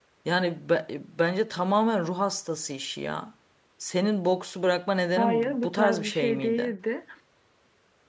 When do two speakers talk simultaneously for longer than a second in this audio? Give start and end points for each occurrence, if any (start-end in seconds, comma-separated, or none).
5.2-6.7